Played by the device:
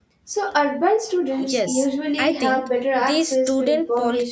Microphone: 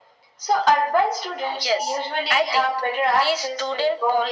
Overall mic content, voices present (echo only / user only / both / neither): echo only